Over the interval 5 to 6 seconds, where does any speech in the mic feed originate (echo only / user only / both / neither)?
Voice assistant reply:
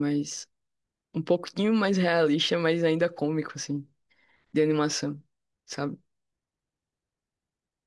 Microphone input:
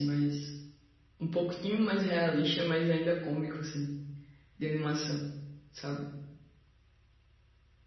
echo only